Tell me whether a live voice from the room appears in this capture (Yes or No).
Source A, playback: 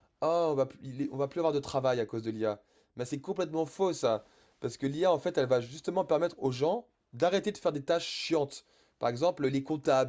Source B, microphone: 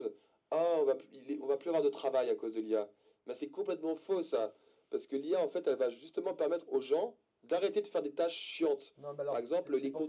Yes